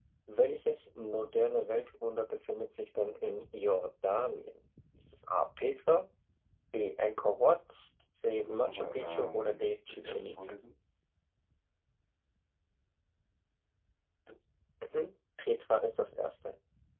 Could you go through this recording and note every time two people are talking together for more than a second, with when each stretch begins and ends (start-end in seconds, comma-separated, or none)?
8.5-10.5